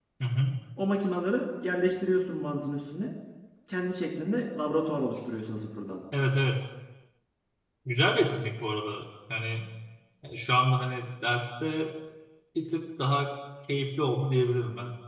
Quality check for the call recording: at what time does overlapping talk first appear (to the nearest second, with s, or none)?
none